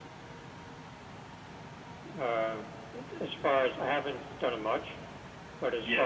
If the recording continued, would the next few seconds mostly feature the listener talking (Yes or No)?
No